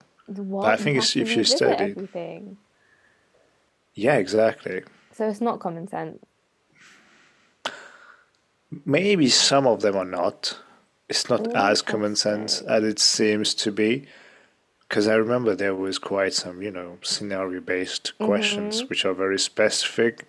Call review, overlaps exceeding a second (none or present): present